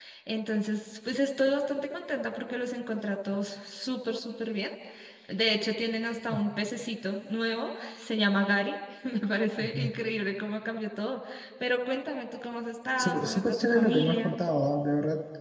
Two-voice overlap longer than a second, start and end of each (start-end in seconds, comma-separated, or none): 13.0-14.3